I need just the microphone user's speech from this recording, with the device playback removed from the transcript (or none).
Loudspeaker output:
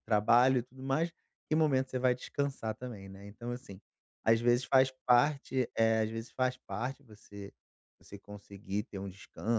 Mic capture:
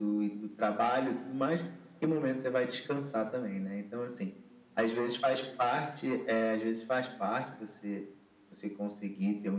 none